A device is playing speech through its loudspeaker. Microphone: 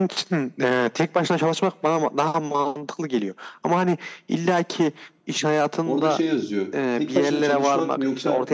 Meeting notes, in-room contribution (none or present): present